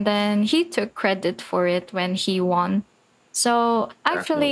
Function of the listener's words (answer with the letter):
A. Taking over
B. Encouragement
B